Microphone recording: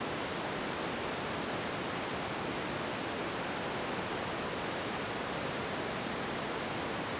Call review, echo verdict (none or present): none